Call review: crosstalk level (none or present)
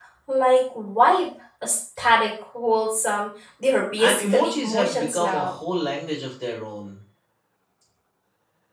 present